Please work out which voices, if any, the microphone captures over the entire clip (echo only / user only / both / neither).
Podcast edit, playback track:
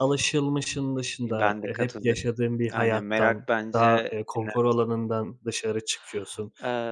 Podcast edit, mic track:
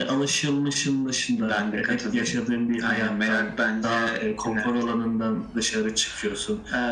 echo only